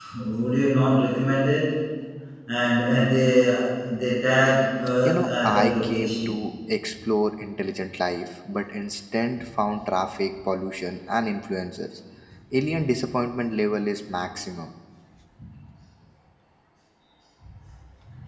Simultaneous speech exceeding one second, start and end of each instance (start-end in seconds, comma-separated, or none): 5.0-6.3